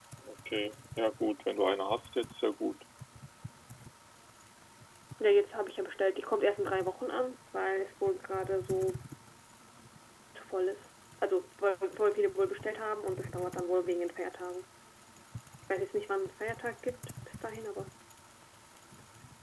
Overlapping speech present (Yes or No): No